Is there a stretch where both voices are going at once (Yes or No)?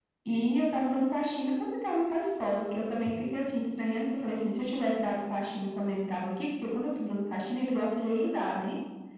No